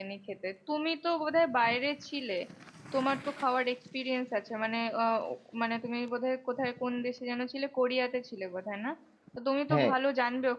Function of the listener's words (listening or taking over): listening